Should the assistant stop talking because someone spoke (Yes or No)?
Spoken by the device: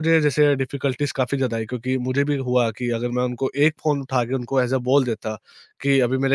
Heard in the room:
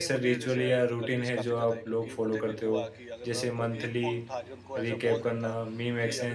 Yes